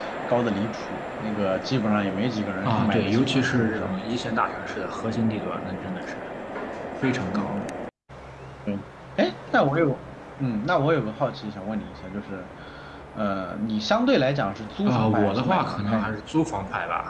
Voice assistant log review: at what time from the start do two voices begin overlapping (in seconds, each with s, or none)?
2.6 s